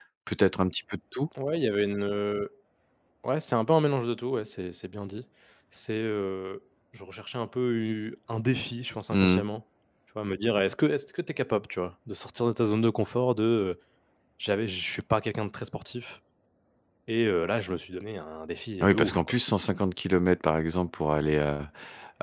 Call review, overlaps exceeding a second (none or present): none